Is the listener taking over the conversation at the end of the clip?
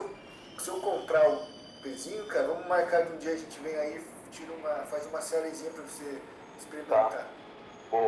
Yes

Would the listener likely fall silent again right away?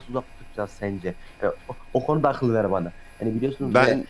Yes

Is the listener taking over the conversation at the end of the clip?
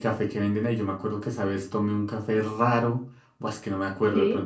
No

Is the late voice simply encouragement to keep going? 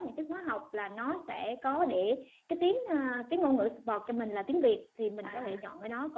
Yes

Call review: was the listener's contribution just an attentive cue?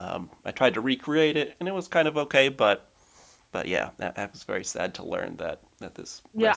No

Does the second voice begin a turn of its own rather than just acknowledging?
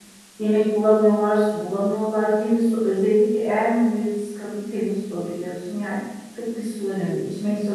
No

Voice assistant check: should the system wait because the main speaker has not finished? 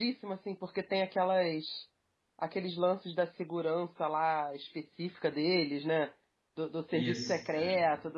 Yes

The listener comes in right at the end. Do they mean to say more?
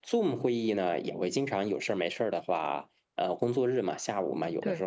No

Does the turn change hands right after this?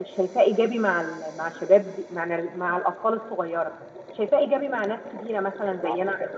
No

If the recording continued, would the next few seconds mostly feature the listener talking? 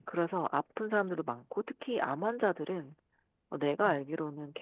No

